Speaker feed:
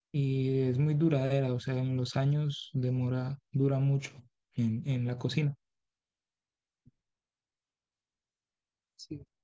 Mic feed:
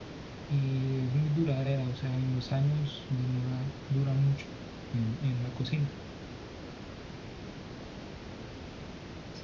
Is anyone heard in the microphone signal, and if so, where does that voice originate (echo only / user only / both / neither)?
echo only